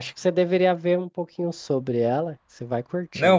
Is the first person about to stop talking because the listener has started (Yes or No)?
Yes